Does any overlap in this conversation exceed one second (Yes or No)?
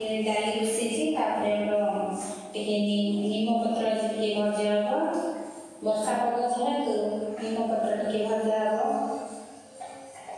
No